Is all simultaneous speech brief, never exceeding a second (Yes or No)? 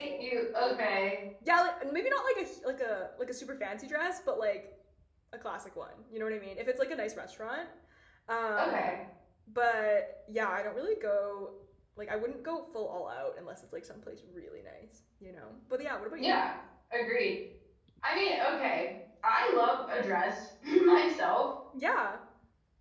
Yes